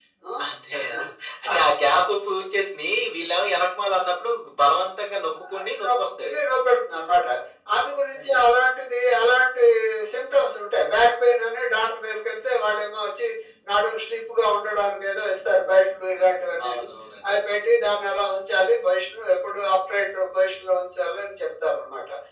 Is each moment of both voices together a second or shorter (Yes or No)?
Yes